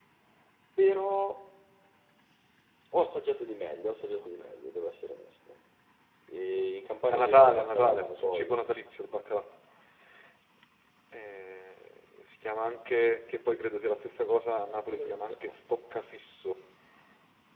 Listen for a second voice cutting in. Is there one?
Yes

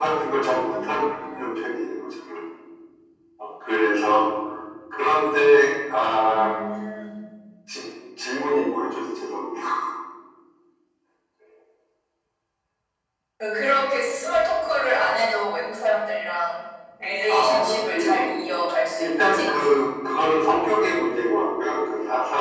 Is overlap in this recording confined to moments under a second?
Yes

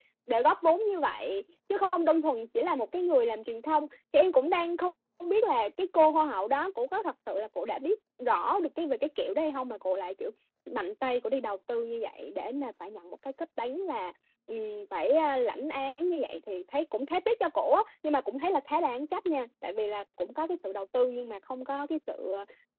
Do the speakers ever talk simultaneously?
No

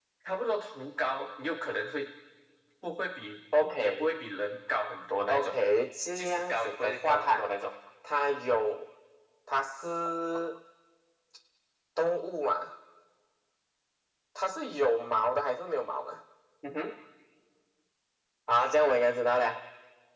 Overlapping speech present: Yes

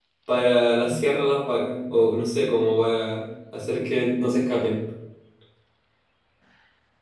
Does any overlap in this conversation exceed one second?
No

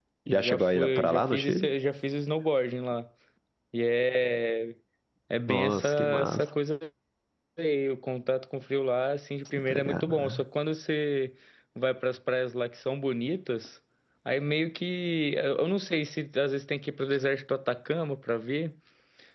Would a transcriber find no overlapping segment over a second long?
No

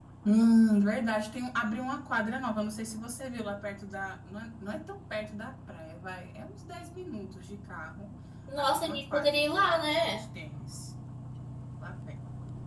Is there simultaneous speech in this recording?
Yes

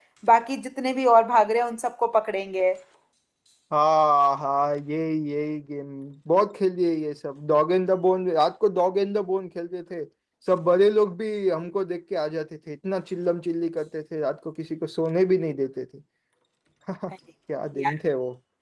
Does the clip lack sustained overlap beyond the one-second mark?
Yes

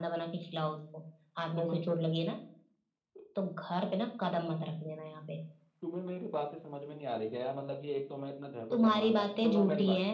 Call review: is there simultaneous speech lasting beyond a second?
Yes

